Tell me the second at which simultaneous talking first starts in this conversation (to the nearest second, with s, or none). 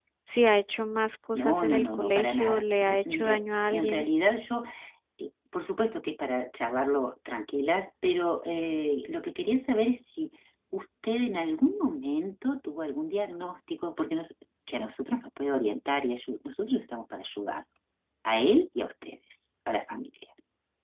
1 s